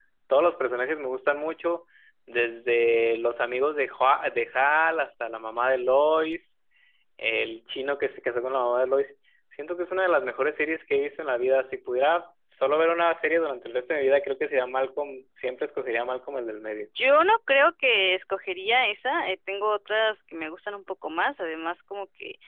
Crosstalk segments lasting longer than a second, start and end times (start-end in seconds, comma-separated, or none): none